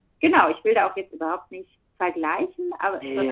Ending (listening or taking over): listening